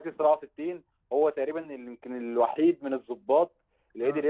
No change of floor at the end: Yes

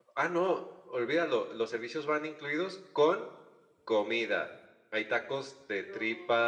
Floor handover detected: No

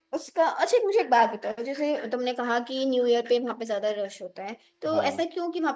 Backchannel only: Yes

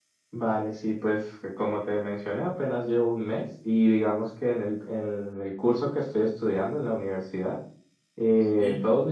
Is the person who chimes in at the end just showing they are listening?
Yes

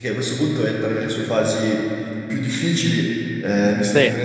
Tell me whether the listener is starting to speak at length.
No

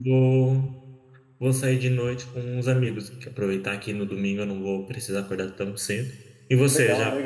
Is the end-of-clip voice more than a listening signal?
Yes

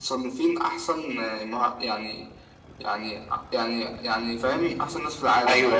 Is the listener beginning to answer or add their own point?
Yes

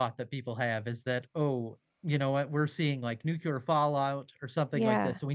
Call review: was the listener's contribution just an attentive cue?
Yes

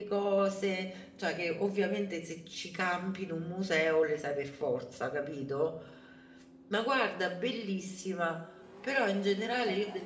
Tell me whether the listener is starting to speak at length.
No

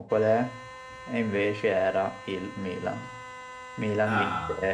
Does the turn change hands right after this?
No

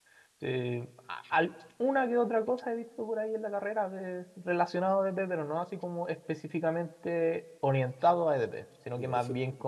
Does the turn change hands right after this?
No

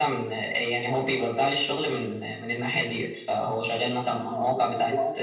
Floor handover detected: Yes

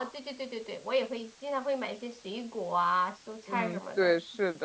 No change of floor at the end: No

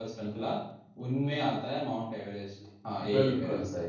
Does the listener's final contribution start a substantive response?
Yes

